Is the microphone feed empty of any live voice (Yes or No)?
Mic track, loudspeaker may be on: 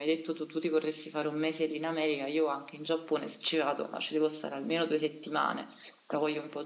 No